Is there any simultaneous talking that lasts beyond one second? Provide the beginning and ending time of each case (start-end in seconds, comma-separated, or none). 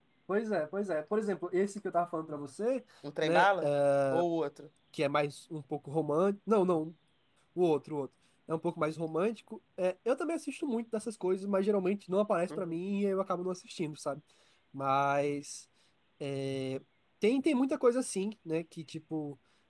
none